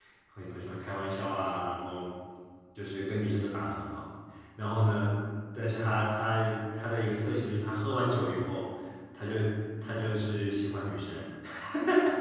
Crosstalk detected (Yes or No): No